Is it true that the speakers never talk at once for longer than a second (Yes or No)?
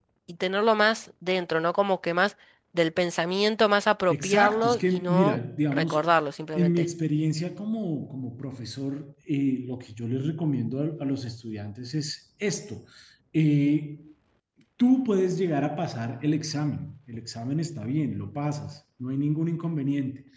No